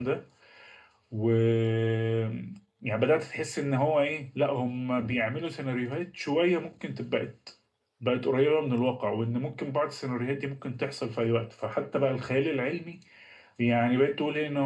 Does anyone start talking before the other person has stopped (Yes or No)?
No